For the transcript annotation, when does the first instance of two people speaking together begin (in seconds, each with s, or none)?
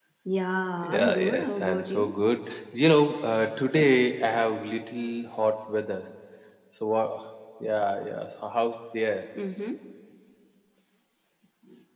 0.8 s